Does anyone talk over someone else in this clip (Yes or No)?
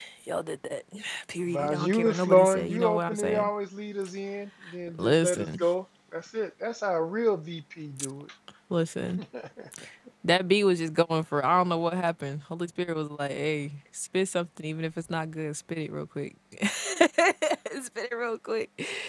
Yes